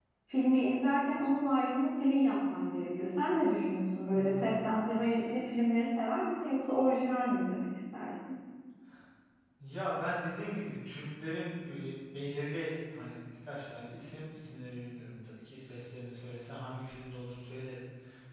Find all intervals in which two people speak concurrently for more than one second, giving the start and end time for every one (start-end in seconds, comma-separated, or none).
none